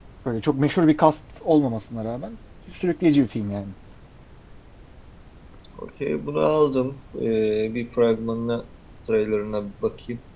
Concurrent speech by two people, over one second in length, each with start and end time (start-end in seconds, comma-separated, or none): none